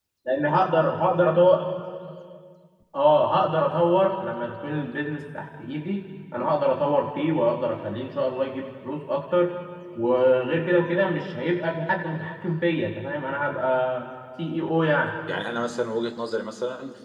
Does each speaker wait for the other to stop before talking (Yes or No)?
Yes